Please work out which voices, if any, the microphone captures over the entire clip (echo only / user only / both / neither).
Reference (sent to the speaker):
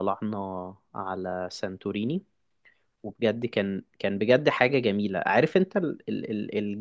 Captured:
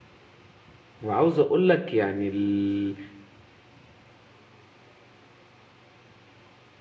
user only